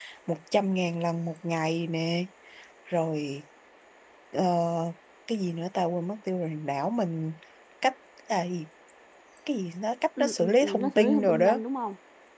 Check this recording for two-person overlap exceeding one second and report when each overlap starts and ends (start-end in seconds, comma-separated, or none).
10.2-11.6